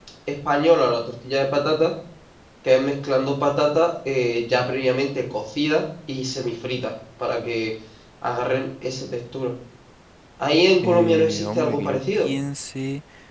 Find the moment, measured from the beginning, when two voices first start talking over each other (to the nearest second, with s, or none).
11 s